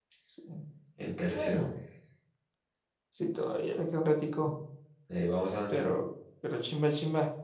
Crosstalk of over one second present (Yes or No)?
No